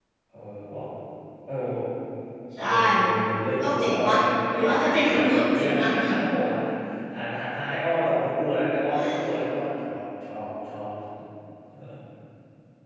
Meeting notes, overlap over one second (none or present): present